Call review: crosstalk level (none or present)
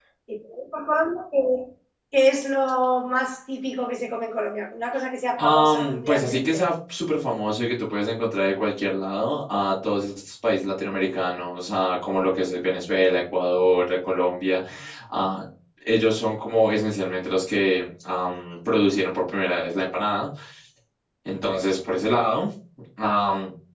present